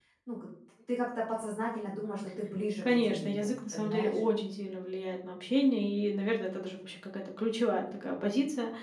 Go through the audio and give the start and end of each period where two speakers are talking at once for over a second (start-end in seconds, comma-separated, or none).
2.8-4.2